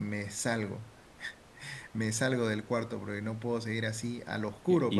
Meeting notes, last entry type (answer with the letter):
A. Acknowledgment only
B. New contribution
B